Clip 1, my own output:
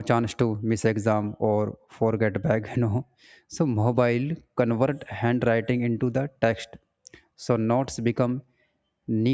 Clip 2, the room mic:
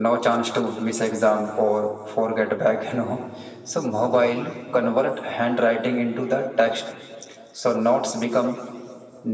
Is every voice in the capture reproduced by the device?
Yes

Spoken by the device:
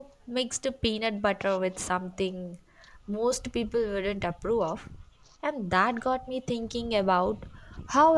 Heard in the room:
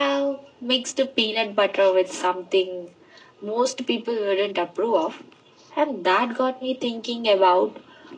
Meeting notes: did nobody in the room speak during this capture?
Yes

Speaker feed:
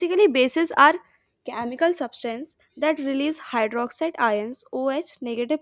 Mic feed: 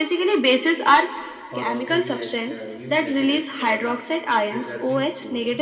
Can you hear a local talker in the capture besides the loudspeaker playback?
Yes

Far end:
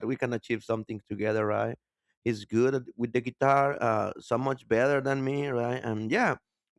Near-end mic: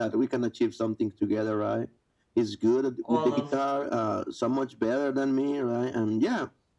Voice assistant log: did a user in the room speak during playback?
Yes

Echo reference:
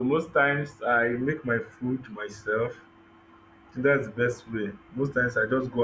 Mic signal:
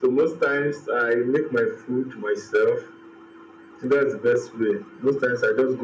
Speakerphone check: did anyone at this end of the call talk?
No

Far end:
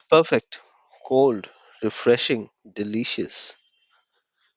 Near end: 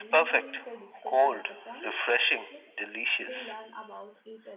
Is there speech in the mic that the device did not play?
Yes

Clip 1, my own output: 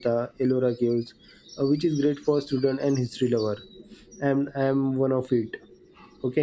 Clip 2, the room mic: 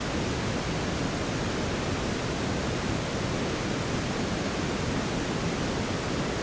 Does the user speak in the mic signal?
No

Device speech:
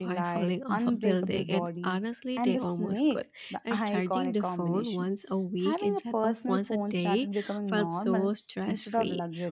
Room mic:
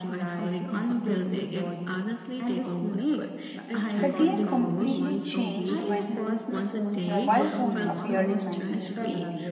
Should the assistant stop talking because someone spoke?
Yes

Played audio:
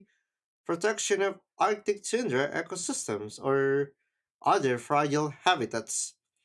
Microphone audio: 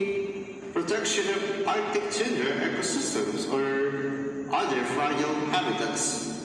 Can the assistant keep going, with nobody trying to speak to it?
Yes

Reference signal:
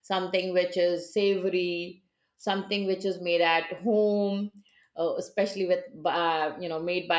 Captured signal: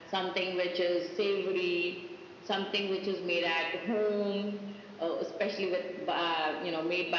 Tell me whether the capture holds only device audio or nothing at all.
Yes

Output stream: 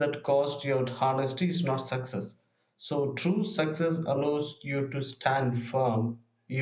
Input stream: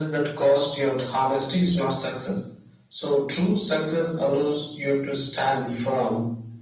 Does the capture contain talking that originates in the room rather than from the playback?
No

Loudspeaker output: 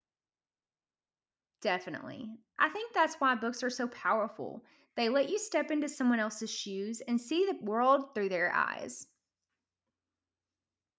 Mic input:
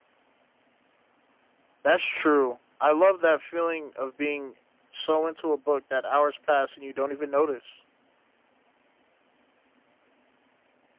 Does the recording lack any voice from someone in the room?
No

